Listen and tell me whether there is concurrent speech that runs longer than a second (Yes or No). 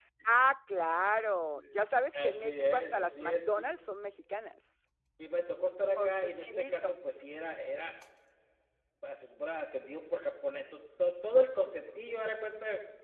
Yes